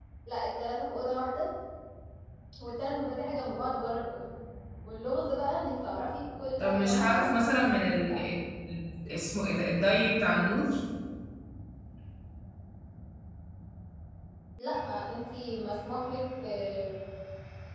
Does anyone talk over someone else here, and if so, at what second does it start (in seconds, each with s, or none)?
6.6 s